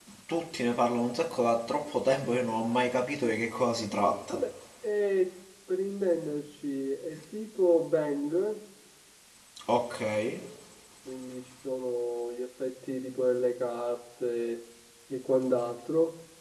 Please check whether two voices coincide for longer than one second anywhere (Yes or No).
No